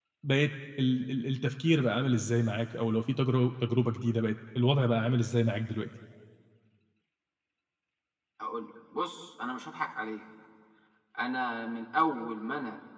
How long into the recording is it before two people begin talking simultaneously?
none

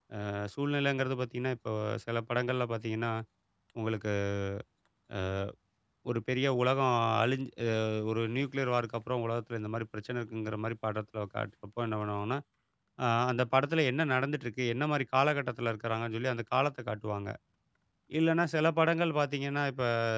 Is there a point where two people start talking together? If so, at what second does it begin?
none

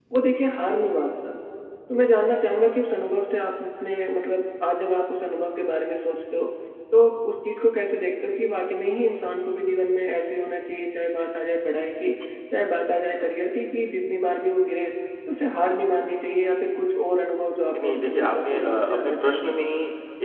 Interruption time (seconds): 17.7 s

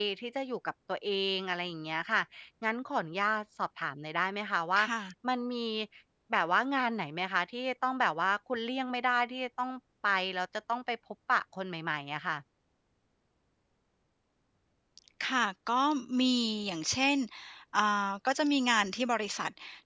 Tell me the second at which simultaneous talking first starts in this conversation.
none

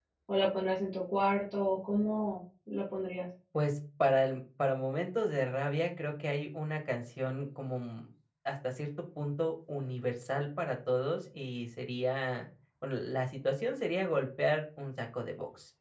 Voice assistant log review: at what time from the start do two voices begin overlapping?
none

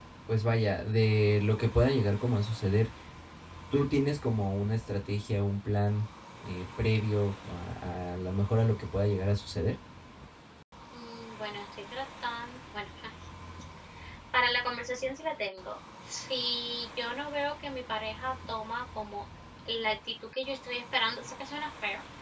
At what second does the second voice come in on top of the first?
none

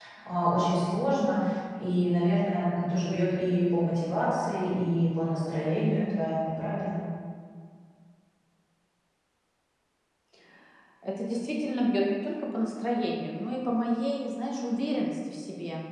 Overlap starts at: none

